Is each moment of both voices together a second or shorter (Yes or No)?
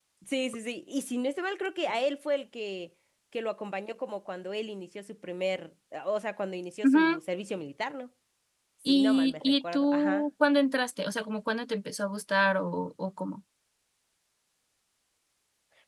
No